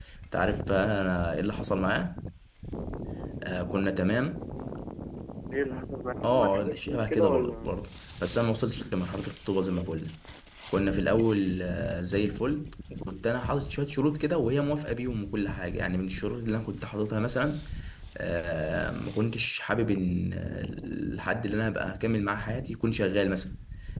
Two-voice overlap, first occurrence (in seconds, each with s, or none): 6.2 s